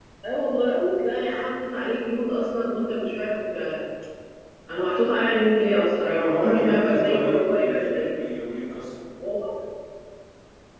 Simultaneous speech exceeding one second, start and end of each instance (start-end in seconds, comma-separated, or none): 6.2-8.1